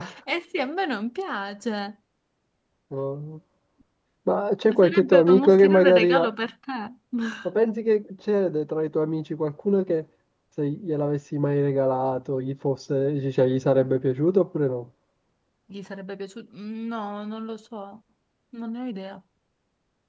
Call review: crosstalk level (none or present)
present